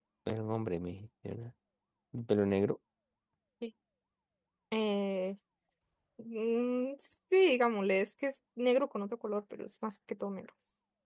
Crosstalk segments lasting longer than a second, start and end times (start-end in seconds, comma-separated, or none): none